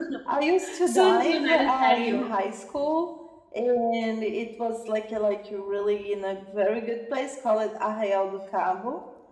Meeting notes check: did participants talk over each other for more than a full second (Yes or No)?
Yes